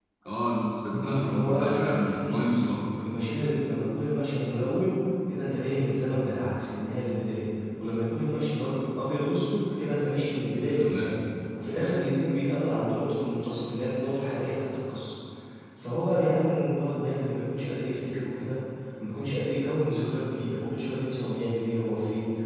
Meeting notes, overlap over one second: present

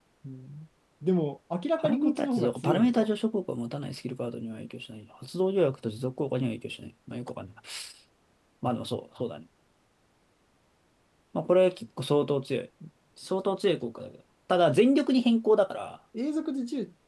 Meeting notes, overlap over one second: present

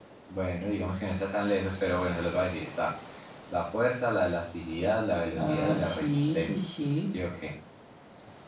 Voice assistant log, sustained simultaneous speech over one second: present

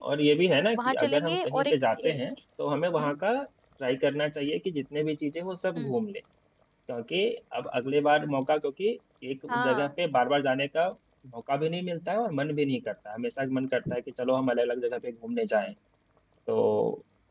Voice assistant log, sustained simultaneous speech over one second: present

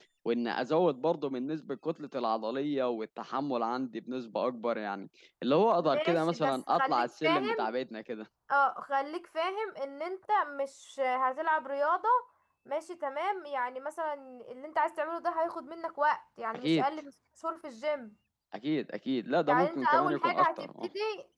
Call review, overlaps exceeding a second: present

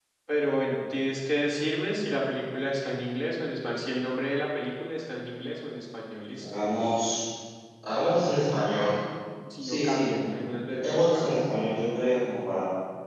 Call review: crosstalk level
present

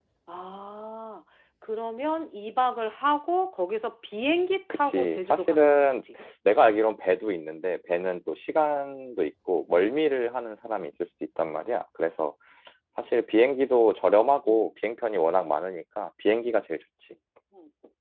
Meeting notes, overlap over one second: present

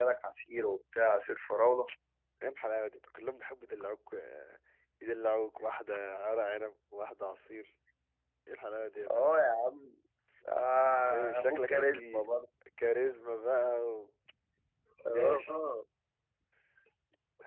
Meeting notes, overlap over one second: present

